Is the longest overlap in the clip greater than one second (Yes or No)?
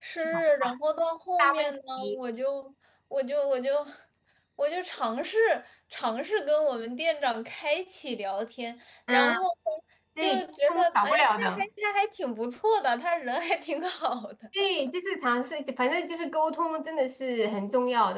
Yes